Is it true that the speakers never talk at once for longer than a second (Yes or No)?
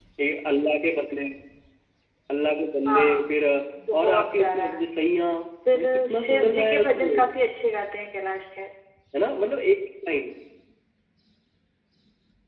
No